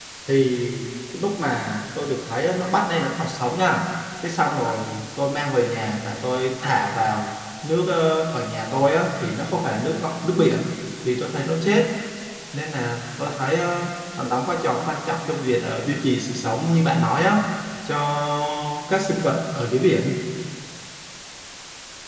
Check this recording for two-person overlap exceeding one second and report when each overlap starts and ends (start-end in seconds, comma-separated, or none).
none